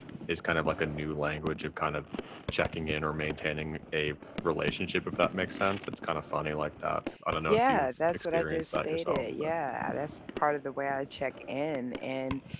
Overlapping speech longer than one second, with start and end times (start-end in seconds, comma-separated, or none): 7.5-9.5